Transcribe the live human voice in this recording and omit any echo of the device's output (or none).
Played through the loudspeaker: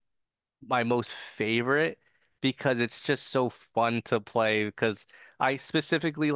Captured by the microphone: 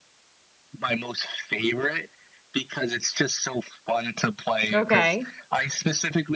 Okay.